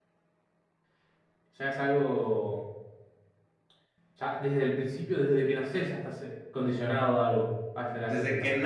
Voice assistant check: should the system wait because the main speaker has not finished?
No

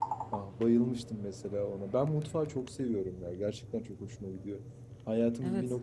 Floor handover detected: No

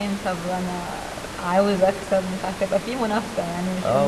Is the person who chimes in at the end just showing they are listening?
No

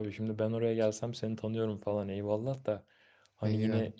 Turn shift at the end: No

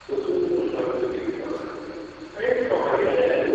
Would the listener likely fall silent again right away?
Yes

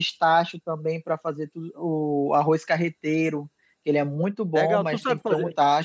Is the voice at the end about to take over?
Yes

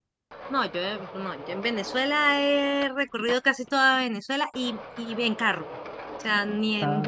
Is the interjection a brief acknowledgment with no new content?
Yes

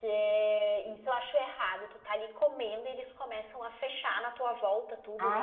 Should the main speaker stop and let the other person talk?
Yes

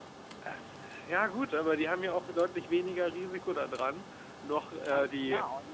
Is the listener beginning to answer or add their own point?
Yes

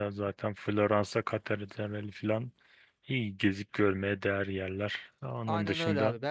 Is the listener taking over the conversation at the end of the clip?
Yes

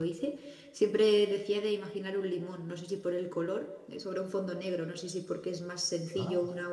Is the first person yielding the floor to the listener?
No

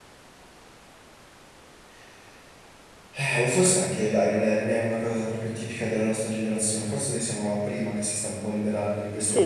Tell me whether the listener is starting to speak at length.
Yes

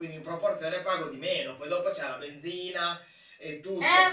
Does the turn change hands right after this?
Yes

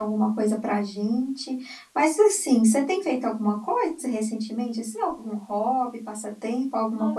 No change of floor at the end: No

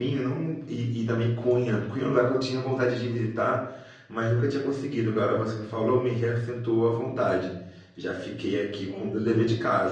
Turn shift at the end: No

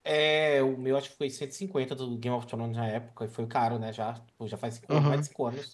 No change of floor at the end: No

